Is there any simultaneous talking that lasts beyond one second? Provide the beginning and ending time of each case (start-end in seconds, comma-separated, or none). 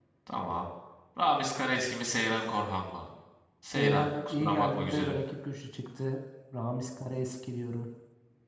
3.7-5.2